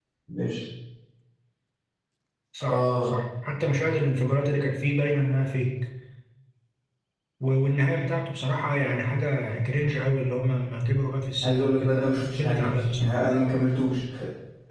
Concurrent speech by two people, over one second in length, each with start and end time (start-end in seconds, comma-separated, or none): 11.4-13.2